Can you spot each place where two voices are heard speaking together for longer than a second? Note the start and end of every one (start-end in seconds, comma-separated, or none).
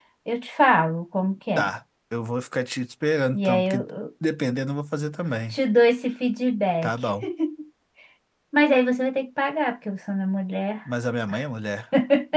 none